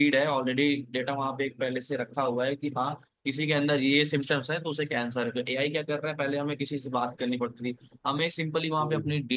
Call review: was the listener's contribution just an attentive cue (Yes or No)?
Yes